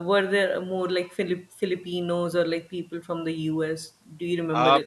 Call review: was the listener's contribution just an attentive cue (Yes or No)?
No